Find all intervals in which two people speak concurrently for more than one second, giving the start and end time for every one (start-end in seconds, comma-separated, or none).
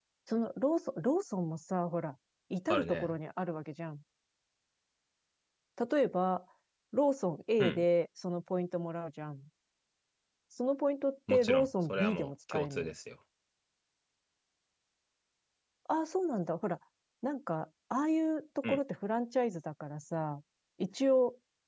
11.3-12.9